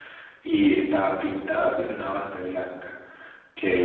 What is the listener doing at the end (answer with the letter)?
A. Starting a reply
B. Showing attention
B